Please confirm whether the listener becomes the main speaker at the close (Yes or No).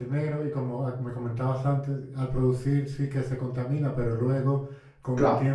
Yes